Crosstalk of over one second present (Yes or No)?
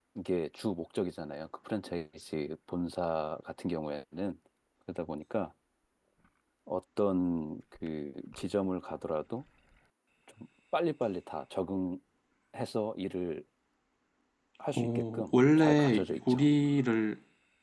Yes